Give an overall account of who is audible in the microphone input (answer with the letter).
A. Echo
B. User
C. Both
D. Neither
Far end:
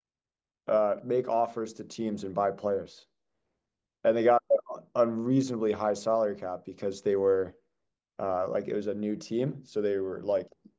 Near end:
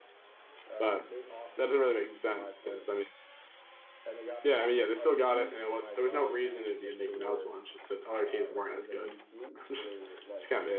C